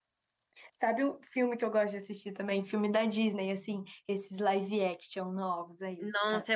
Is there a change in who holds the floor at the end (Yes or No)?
Yes